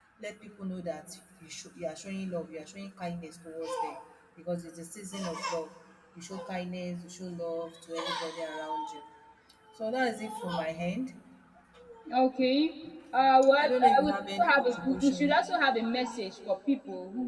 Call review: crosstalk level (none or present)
present